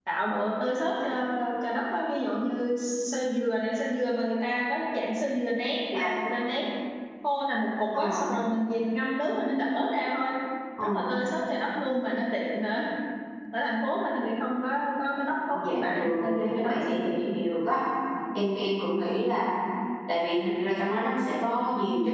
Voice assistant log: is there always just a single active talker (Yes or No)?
No